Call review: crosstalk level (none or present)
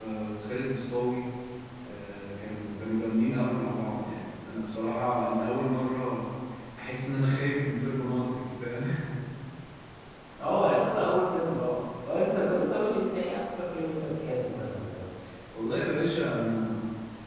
none